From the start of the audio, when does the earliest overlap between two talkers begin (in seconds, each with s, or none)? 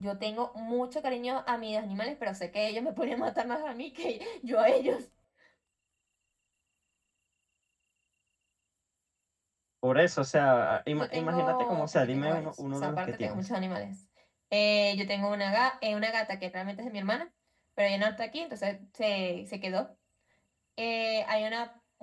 11.0 s